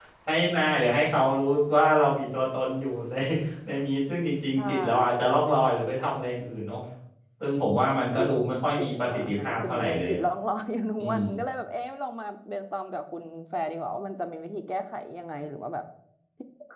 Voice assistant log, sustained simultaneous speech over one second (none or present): present